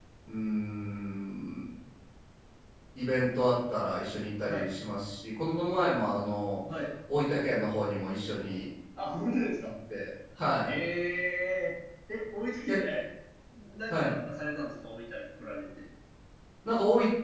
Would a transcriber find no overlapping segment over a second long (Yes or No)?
Yes